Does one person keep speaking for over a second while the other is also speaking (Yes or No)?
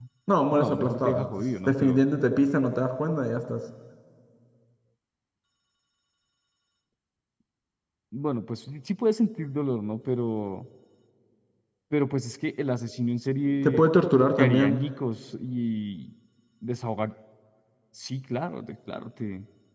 Yes